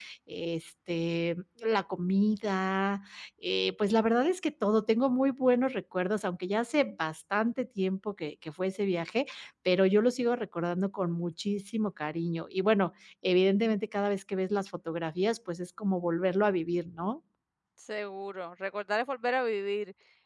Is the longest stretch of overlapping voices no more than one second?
Yes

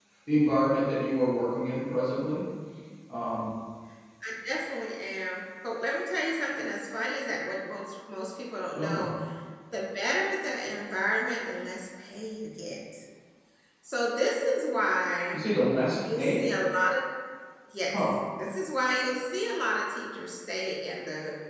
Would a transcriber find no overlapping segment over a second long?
Yes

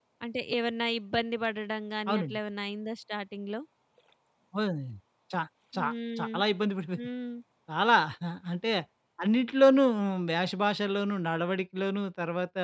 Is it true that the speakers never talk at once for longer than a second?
Yes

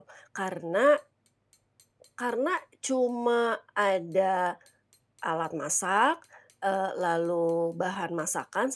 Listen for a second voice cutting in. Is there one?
No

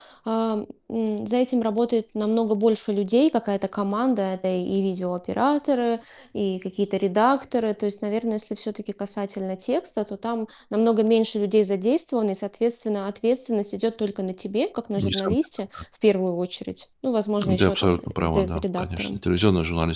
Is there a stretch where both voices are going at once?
Yes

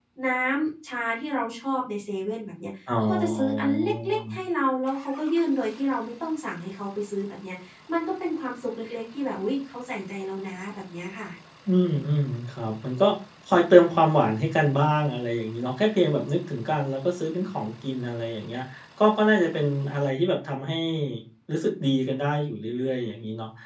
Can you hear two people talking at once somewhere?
Yes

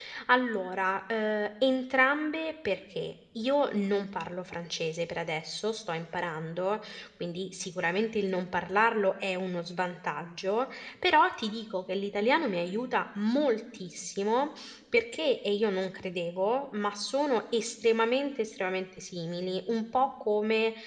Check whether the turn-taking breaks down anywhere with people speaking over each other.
No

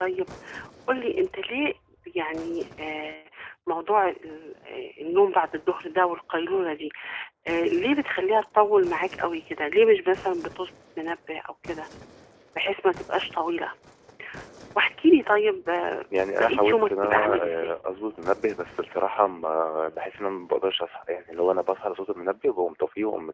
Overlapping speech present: Yes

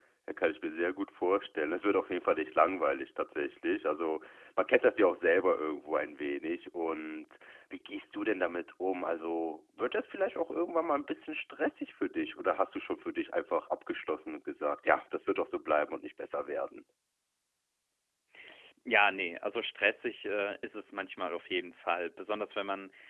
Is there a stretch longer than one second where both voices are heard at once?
No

